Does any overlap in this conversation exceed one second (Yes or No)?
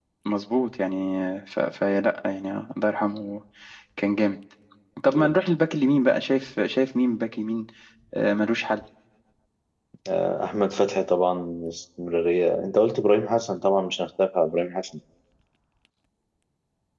No